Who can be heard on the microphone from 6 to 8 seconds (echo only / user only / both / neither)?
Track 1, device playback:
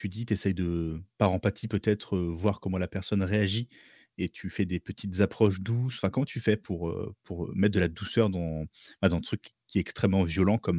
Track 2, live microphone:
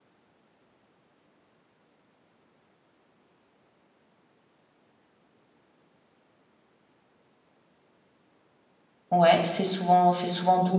neither